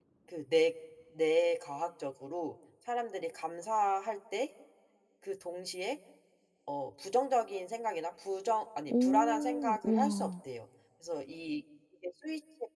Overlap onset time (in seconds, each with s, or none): 8.9 s